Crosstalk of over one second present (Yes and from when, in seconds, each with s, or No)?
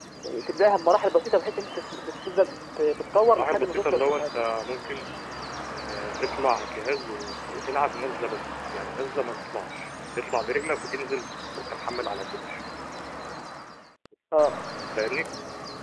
Yes, from 3.2 s